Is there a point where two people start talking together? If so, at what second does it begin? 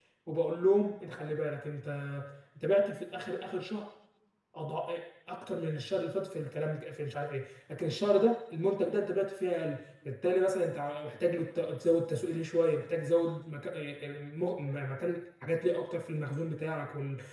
none

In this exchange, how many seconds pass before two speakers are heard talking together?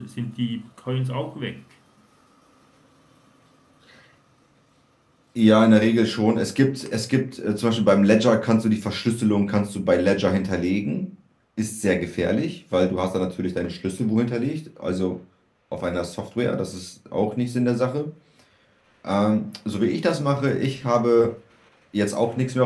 none

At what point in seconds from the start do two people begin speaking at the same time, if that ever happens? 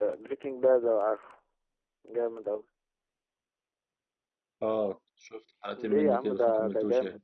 6 s

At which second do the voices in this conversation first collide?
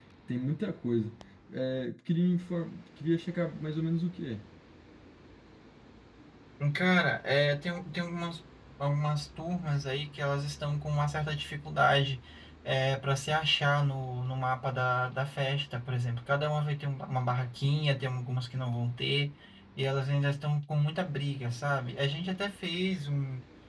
none

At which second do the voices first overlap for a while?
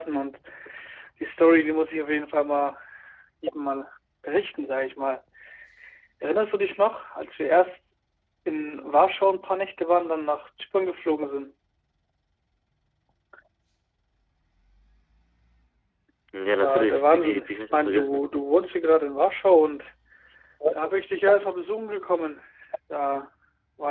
16 s

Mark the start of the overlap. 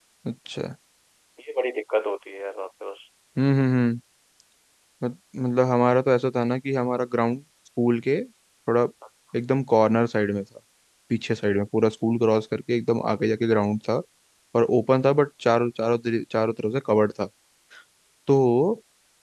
none

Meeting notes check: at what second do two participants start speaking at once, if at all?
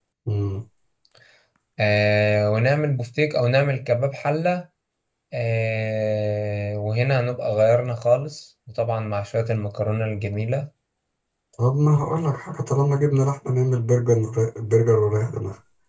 none

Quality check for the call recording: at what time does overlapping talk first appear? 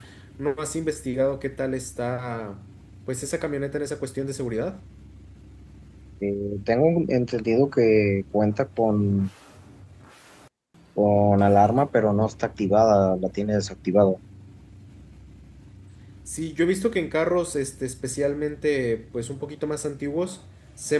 none

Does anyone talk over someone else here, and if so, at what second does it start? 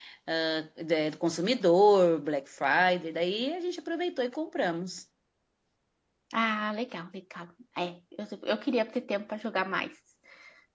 none

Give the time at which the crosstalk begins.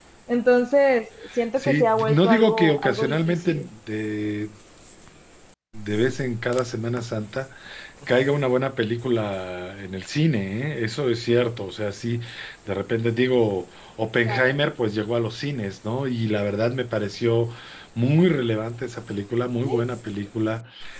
2 s

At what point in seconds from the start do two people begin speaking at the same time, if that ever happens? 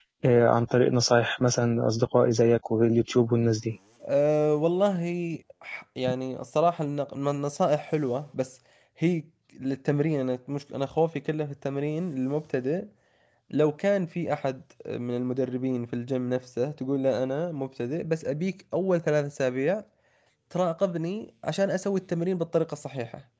none

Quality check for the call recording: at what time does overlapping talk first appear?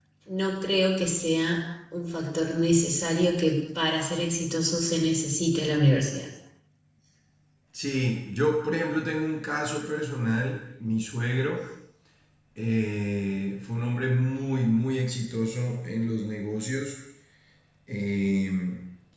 none

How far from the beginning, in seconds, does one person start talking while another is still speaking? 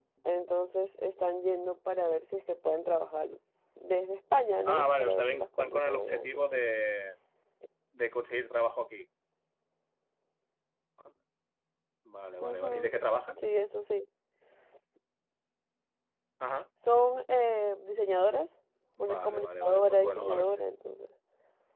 5 s

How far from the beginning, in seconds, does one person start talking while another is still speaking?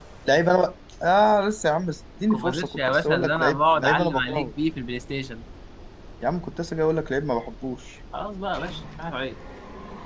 2 s

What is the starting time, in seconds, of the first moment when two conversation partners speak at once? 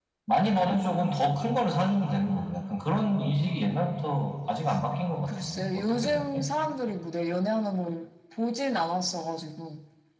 5 s

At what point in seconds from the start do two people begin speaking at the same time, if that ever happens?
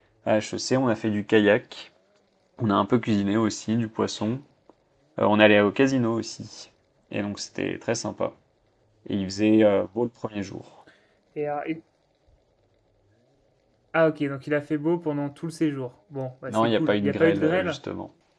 16 s

